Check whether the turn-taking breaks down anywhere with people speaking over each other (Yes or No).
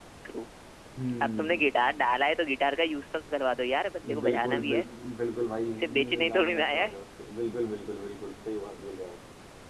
Yes